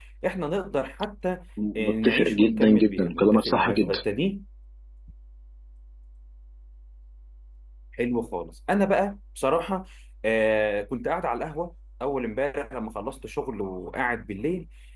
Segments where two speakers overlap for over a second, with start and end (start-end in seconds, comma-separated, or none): 1.8-4.0